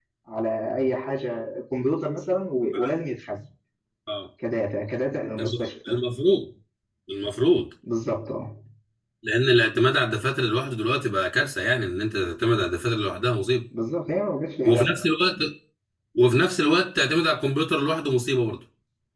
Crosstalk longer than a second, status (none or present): none